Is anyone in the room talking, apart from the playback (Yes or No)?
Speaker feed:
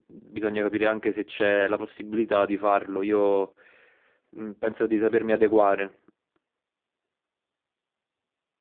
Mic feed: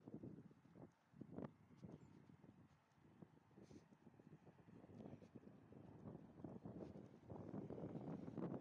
No